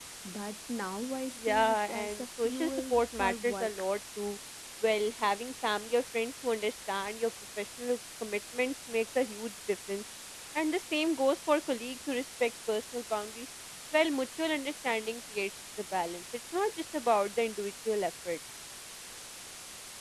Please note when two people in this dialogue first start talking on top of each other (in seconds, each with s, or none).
1.4 s